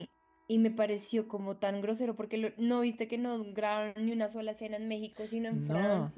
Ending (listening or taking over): taking over